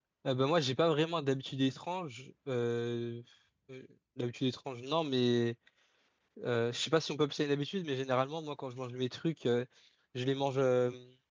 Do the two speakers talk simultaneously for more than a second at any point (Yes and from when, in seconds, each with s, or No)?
No